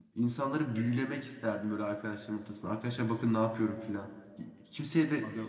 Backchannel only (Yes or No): Yes